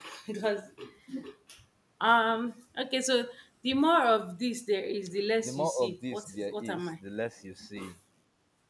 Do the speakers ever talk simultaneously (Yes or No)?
Yes